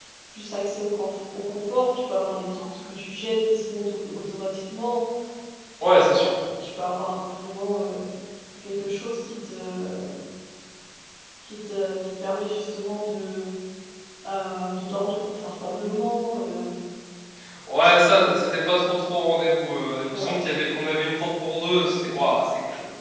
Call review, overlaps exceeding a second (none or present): none